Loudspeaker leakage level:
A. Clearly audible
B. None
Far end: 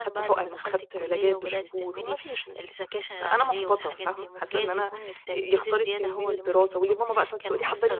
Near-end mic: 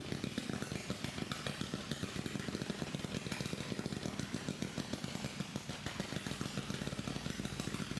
B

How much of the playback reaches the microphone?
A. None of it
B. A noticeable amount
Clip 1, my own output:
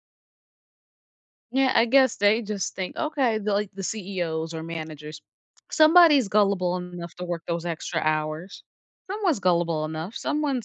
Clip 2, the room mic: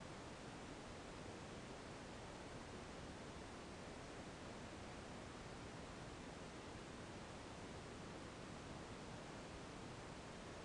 A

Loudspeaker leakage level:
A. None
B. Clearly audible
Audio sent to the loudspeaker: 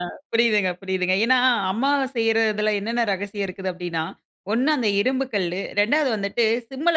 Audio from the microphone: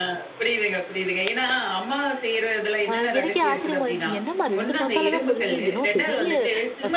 B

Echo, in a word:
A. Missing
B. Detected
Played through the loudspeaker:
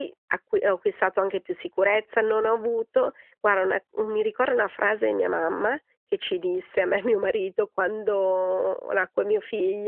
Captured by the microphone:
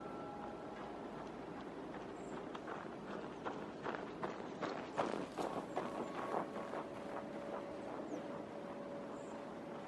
A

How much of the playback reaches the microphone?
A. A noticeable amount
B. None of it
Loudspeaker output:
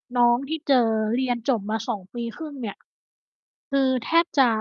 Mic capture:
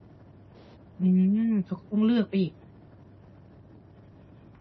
B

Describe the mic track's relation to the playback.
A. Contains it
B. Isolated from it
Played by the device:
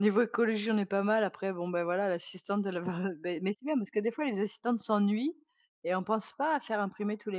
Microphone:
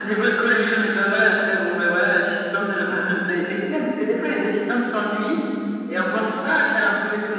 A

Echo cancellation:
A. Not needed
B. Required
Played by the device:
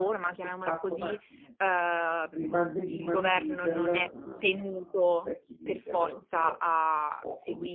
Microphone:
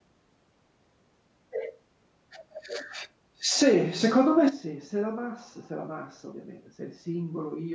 A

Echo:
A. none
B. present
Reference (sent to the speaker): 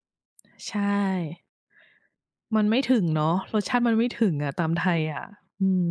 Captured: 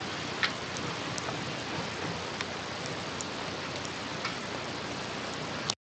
A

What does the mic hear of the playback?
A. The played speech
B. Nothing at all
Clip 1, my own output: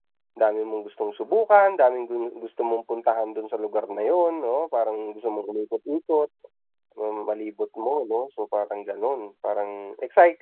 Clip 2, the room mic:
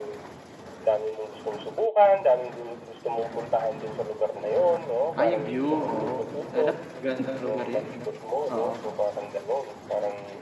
A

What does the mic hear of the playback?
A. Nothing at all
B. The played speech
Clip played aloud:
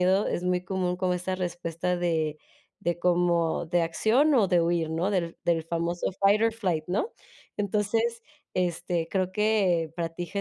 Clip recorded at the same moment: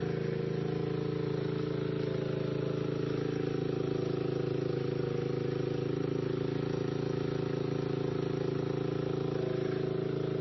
A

